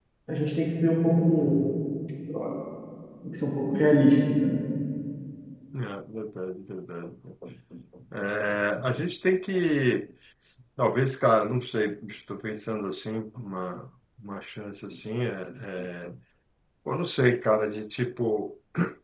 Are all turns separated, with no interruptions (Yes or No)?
Yes